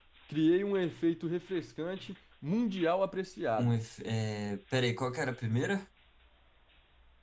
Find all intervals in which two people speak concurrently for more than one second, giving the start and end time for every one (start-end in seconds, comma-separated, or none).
none